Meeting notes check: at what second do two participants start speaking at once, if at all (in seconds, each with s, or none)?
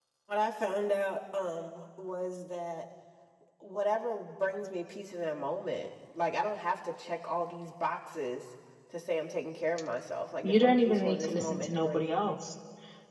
10.4 s